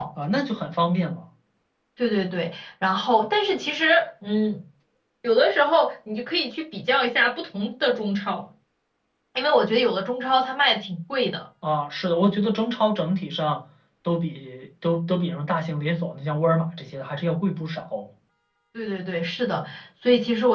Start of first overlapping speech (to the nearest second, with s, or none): none